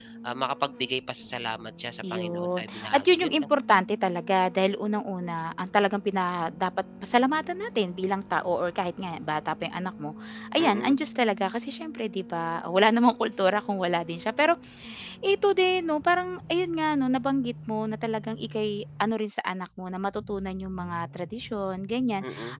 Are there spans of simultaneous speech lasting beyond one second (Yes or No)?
Yes